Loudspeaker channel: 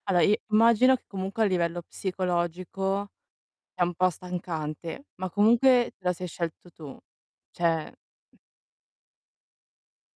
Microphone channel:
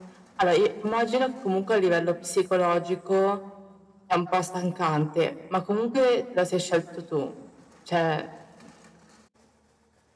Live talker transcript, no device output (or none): none